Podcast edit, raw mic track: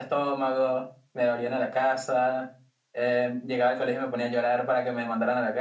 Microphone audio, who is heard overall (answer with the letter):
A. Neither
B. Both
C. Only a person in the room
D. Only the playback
D